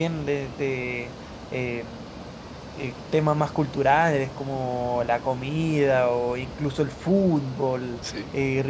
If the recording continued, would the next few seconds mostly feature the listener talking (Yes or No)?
No